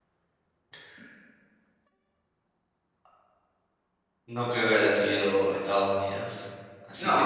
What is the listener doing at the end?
listening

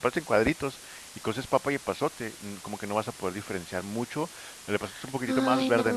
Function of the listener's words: taking over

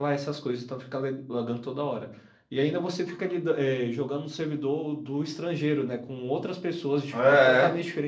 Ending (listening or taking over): listening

